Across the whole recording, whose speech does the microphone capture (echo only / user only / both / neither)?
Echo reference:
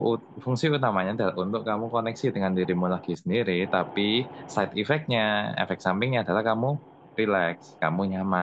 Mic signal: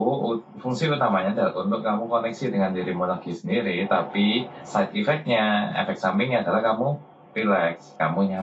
echo only